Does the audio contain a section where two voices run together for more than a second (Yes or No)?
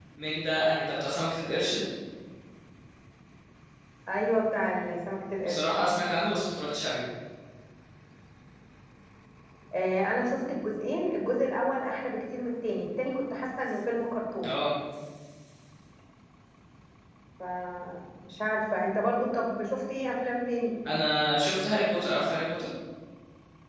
No